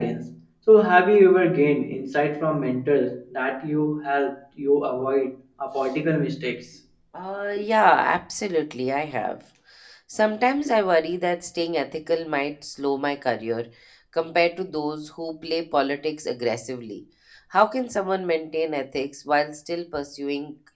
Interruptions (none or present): none